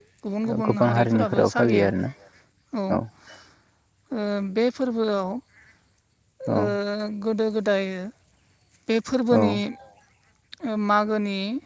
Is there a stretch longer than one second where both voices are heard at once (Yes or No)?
Yes